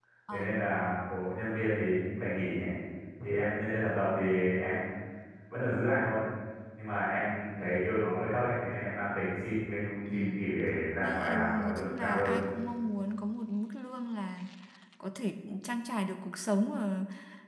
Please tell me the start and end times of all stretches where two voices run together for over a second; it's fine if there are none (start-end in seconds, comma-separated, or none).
11.0-12.4